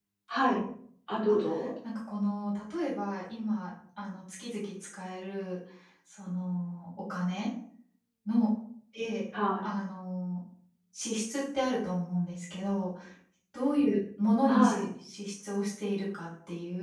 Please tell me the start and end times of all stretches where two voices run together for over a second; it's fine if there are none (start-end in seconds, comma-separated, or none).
none